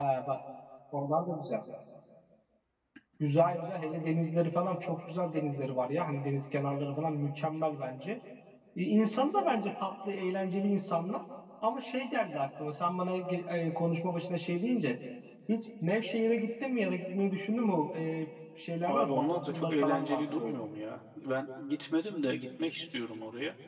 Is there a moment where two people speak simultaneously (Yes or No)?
Yes